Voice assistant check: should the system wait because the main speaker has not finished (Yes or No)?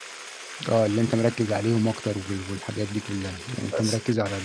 Yes